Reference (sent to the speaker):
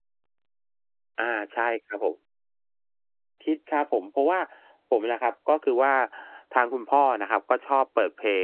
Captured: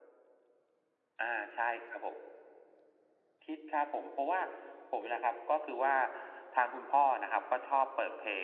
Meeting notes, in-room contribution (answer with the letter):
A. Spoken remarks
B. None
B